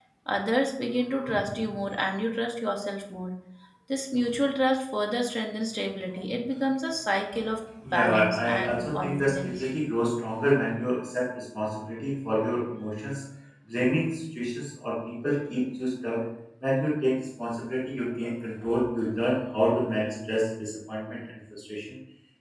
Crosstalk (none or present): present